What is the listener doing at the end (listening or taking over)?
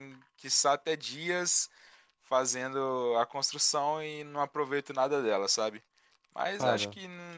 listening